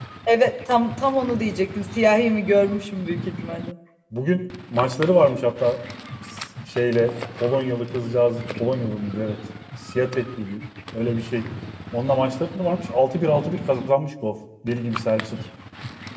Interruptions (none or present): none